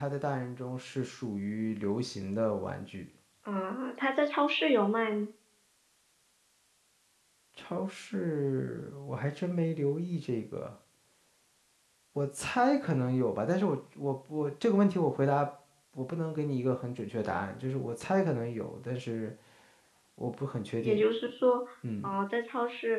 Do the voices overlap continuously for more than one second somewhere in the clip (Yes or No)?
No